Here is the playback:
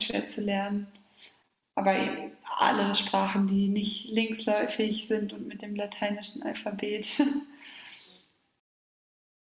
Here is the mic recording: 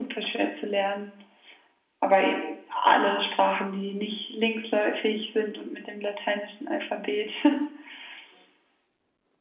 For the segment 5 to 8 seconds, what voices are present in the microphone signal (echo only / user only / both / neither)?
echo only